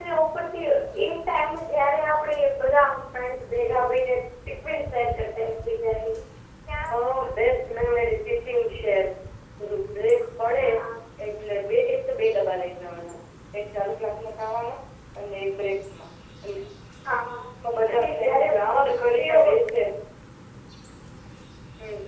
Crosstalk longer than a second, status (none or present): present